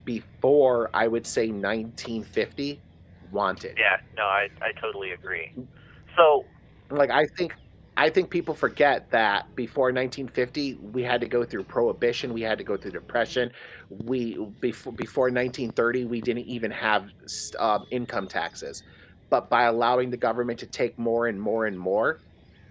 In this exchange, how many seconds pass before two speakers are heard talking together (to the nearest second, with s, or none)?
none